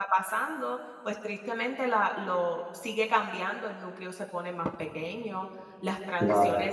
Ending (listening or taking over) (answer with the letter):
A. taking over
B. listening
B